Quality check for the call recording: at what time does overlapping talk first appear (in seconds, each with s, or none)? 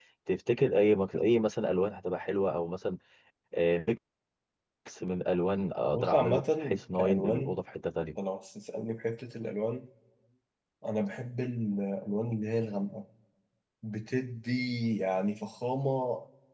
5.9 s